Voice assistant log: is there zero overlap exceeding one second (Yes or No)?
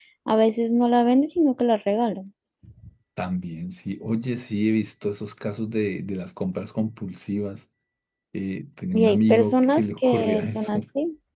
No